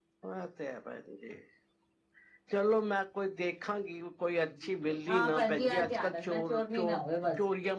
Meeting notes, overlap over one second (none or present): present